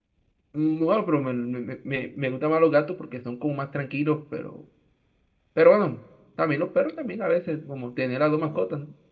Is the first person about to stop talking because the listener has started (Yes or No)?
Yes